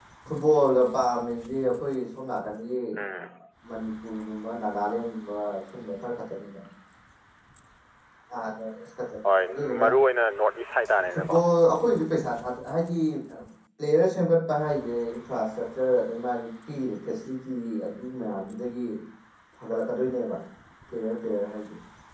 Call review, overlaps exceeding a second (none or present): none